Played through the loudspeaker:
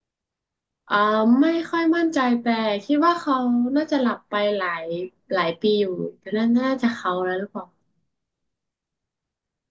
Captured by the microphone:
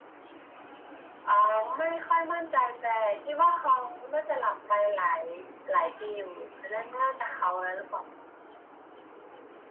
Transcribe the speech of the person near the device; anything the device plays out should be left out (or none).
none